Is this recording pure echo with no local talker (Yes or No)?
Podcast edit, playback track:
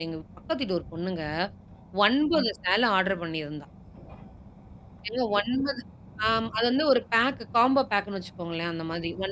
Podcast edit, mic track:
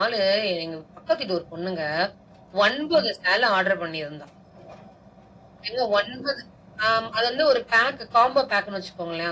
Yes